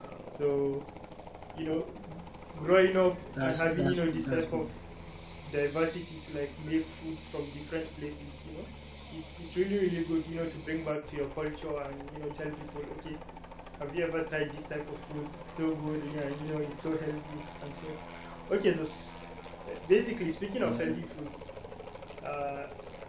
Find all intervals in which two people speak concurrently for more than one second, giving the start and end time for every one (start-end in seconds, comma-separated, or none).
3.4-4.6